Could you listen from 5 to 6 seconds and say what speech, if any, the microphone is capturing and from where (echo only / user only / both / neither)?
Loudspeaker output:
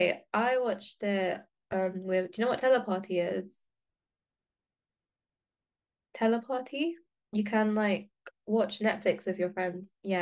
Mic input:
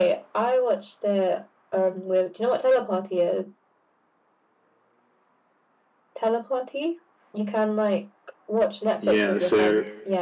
neither